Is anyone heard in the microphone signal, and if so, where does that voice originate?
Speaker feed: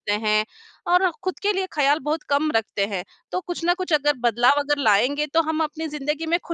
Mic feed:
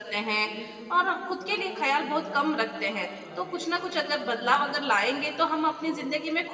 both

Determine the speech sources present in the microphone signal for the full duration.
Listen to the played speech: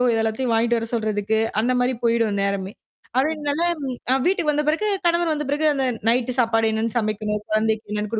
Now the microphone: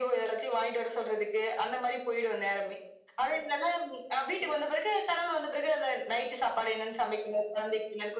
echo only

